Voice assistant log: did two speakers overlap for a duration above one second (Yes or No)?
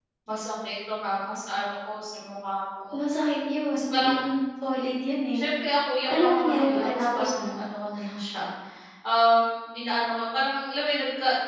Yes